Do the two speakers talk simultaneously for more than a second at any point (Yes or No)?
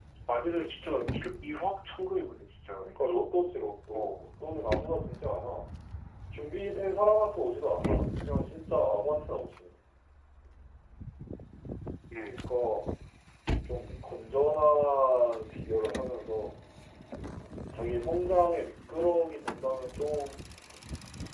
No